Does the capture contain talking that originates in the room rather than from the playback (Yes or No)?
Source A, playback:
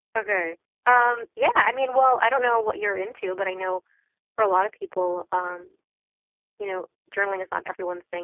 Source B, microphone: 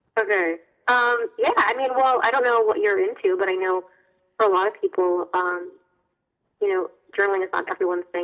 No